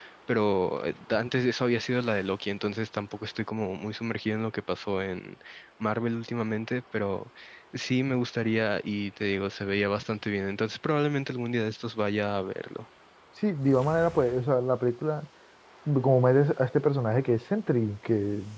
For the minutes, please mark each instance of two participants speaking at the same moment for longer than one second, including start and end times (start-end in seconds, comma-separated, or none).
none